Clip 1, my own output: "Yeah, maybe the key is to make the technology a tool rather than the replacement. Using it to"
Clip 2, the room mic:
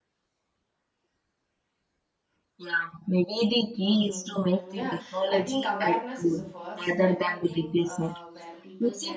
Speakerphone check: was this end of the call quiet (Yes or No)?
No